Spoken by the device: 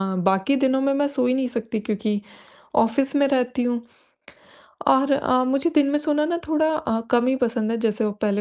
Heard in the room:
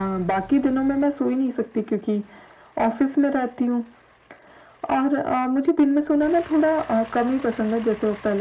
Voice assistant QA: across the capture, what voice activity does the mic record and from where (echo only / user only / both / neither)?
echo only